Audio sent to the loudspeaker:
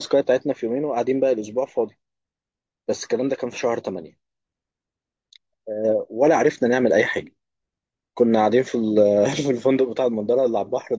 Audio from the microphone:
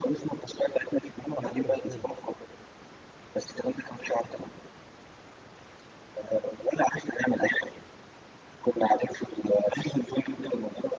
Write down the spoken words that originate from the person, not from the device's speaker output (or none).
البحر بقى زباله